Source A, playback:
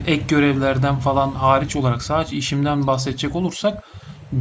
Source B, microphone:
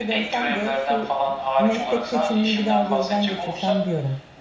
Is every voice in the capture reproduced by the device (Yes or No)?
No